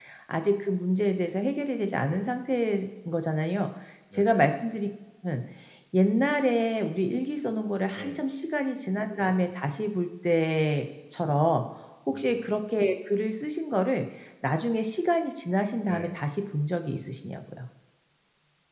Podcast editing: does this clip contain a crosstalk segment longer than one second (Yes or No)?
No